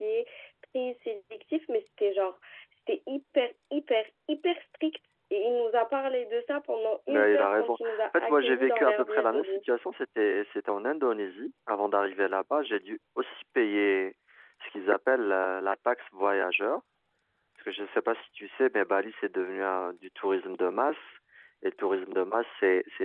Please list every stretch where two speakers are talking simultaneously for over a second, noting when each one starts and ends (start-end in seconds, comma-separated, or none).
7.1-9.6